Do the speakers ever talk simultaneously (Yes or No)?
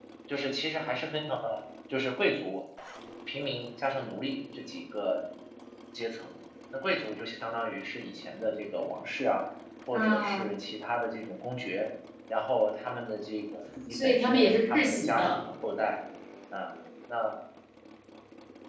Yes